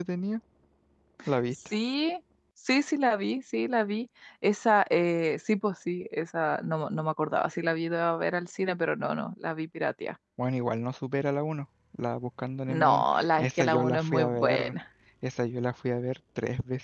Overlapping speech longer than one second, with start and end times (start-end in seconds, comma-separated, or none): 12.7-14.7